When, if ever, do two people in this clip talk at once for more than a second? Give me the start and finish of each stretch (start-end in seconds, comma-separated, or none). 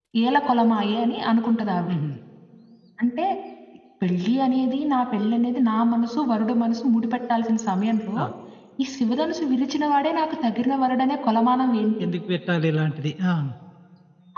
none